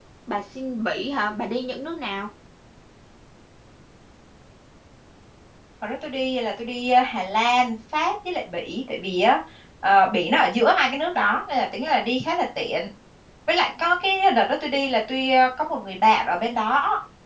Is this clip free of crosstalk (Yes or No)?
Yes